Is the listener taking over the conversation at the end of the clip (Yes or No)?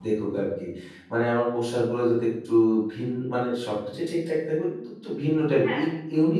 No